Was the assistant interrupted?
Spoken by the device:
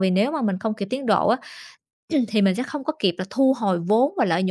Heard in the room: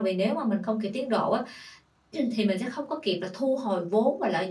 No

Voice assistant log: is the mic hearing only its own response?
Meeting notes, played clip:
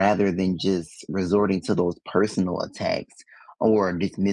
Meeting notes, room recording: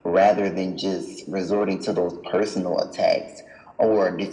Yes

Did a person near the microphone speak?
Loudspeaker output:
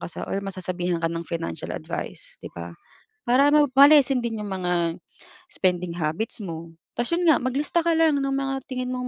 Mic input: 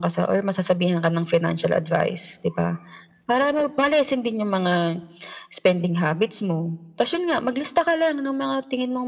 No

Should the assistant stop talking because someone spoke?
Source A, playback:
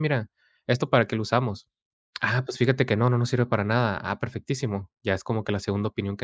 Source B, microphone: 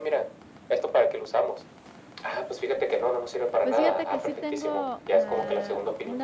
Yes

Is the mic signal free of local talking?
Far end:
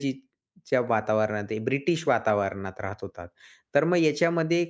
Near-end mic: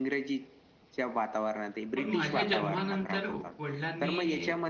No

